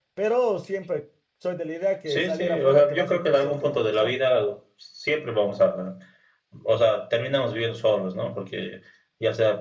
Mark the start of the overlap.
2 s

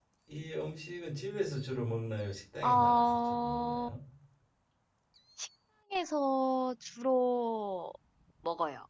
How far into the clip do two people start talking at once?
3 s

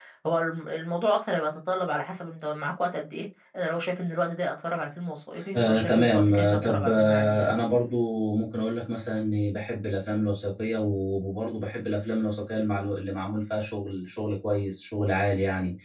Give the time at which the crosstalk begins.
6 s

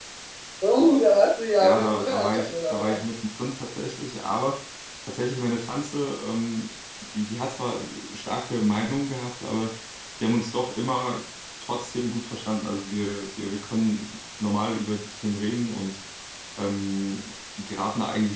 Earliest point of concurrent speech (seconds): 2 s

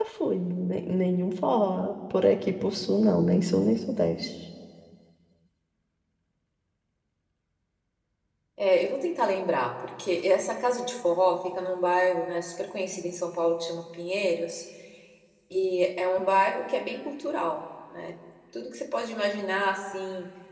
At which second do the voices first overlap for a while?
none

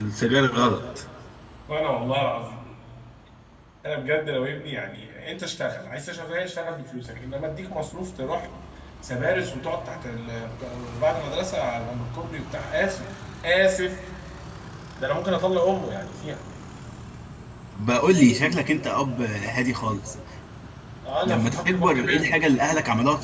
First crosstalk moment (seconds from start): 21 s

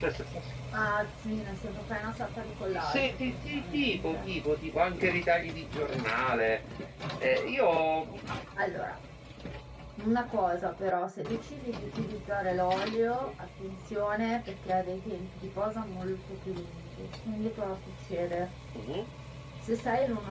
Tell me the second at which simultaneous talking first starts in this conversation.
3 s

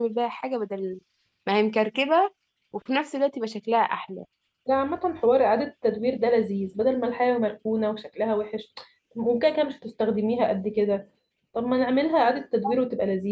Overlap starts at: none

